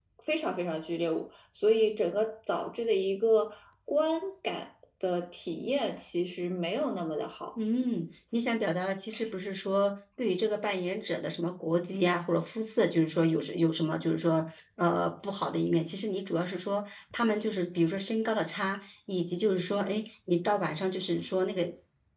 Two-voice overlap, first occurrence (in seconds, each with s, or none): none